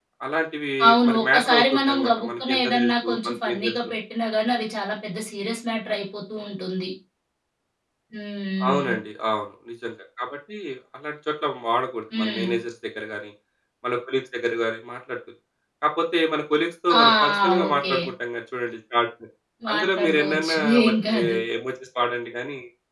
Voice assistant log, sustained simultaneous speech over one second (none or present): present